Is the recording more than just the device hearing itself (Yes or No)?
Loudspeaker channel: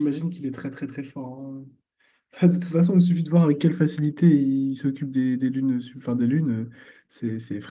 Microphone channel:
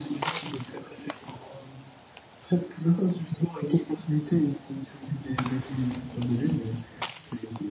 No